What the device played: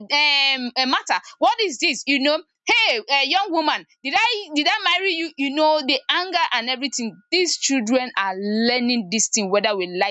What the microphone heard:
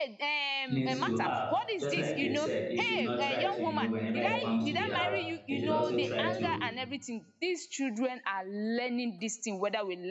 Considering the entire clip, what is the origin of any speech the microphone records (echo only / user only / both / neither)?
both